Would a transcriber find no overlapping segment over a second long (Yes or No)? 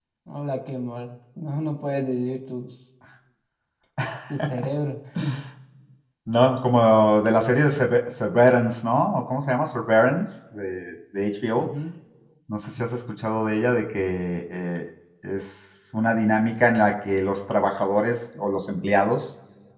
Yes